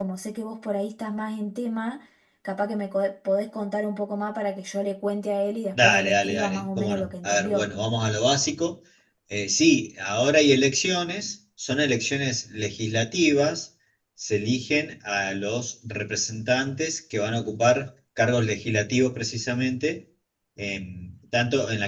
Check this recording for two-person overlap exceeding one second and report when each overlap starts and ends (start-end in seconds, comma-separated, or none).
5.8-7.7